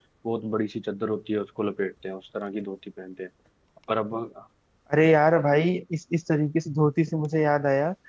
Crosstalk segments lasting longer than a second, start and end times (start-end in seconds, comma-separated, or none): none